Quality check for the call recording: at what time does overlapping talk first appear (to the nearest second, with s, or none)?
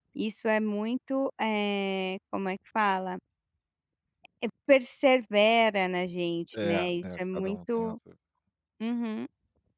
7 s